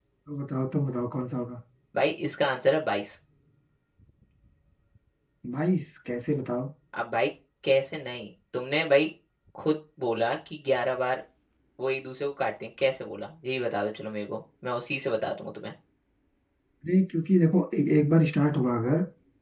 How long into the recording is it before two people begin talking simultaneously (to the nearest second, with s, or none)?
none